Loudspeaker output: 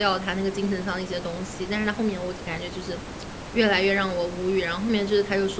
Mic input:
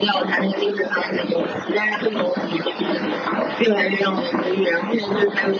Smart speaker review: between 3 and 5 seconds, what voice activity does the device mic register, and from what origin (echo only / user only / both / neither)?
echo only